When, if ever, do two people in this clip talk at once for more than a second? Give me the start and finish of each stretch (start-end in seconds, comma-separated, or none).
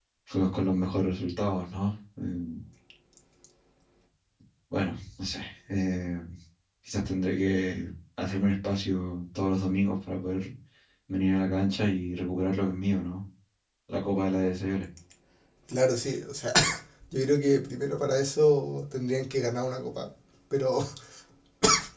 none